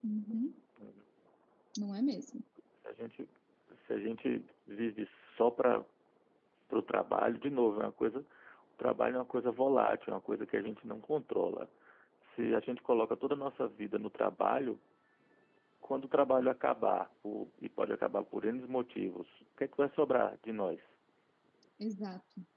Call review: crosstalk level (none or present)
none